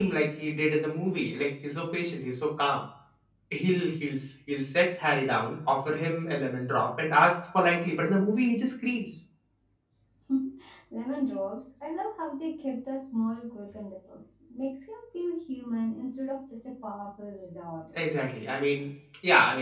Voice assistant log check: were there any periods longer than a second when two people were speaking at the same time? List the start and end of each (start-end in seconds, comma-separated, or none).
none